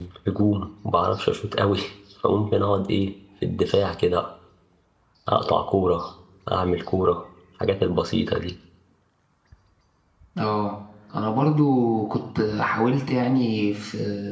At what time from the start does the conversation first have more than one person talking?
none

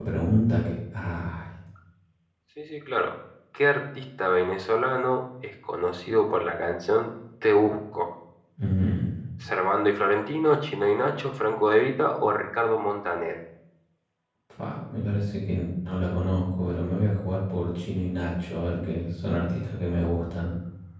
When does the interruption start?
none

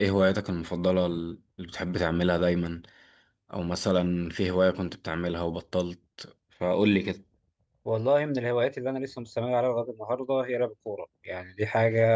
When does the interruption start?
none

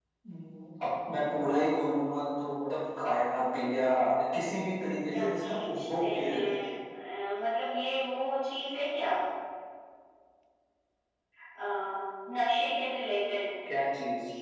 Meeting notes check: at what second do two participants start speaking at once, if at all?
5.1 s

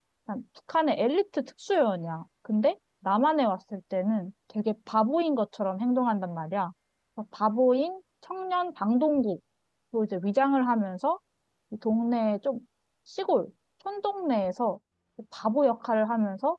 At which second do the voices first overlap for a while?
none

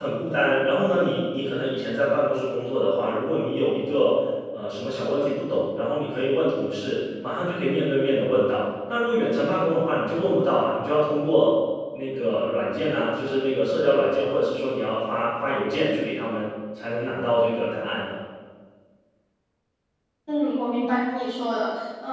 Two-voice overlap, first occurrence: none

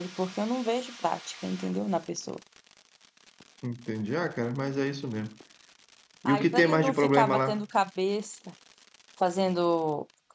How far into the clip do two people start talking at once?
6.2 s

